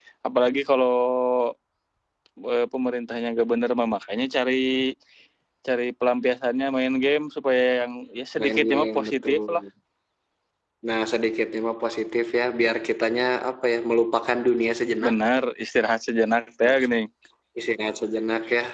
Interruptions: present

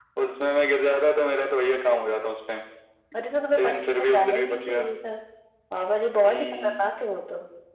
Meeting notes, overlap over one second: present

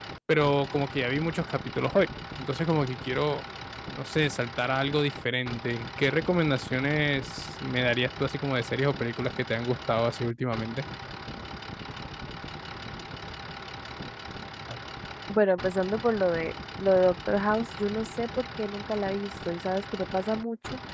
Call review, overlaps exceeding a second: none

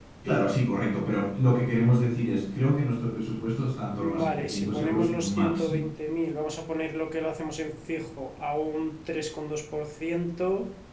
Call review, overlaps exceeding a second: present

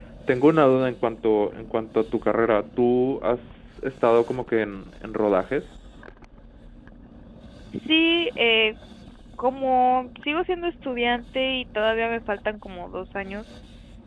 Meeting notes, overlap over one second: none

